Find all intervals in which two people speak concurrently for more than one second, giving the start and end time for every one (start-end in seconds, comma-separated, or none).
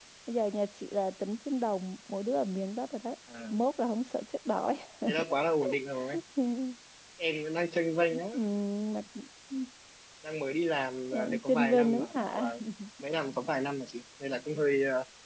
11.1-12.6